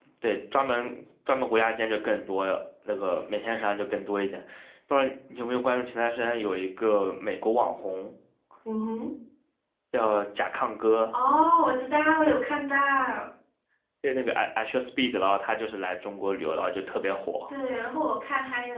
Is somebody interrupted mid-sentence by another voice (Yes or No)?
No